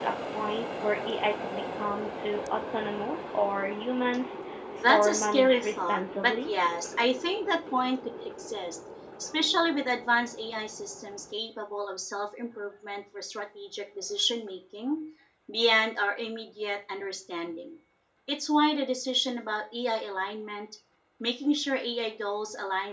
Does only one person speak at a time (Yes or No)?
No